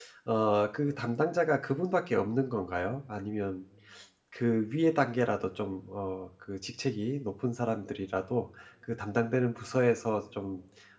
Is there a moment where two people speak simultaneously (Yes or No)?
No